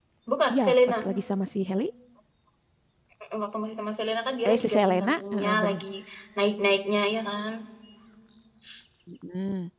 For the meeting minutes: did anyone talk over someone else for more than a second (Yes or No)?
Yes